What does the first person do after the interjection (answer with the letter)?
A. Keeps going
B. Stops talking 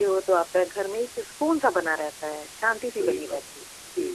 B